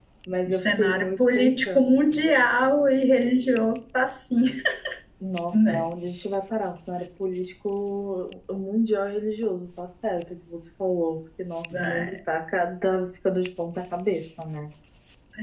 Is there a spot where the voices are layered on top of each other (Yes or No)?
Yes